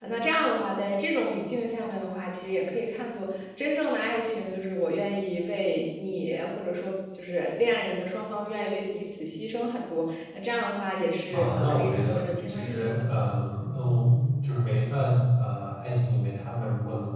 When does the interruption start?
11.3 s

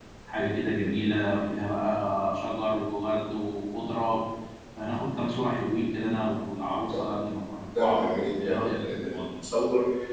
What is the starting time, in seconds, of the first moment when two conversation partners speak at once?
7.8 s

